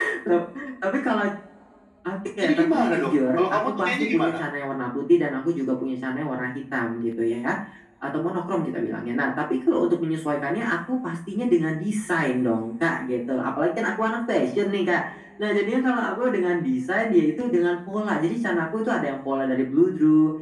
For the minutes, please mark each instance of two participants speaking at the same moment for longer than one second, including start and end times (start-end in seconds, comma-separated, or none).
2.4-4.3